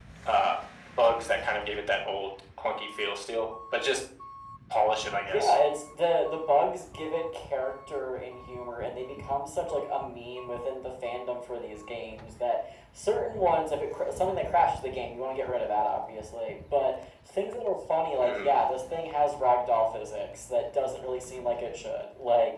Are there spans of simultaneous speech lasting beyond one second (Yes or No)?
No